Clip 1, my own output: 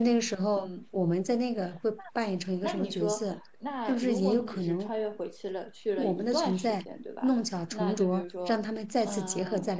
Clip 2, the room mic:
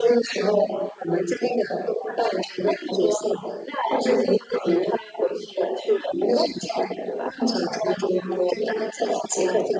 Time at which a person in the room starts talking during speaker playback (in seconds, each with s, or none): none